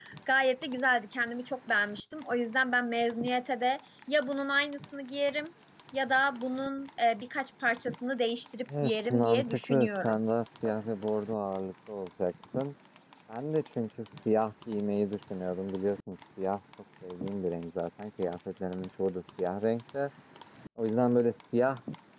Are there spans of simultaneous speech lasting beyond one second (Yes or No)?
Yes